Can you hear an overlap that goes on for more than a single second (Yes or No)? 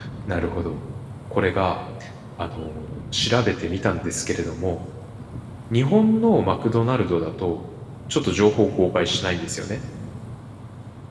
No